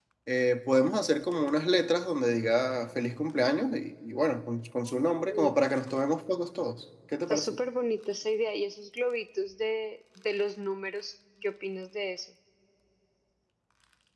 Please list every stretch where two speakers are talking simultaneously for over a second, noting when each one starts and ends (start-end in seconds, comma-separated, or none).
none